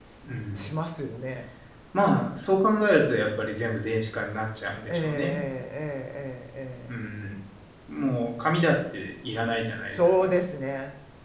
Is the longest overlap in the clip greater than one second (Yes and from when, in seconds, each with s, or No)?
No